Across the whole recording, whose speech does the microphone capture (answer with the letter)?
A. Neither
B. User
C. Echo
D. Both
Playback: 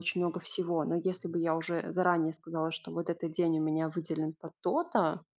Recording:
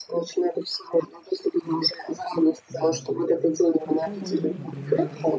D